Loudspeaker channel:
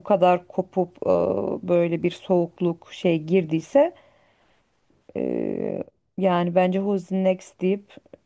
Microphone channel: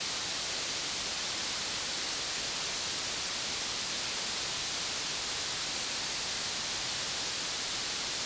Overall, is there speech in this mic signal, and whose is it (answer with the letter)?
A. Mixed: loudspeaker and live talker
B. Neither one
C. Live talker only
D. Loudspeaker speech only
B